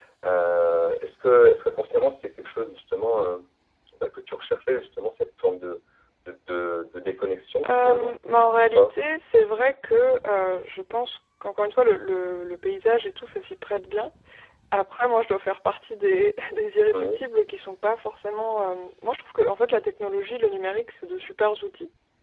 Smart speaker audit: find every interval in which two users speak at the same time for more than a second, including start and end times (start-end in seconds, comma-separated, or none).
7.6-8.9